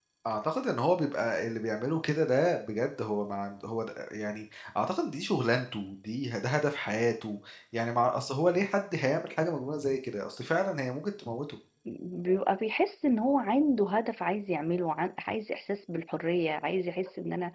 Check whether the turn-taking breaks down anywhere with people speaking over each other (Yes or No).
No